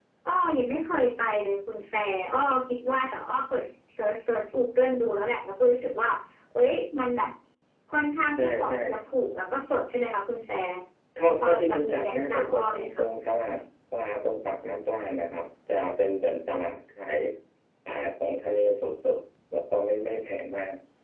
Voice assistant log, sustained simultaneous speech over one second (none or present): present